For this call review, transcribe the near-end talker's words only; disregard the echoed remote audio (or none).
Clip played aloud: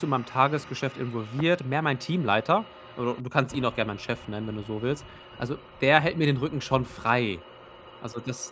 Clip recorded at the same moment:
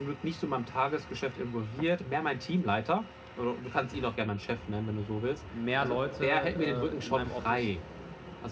mehr Leute, äh, d in meinem Office,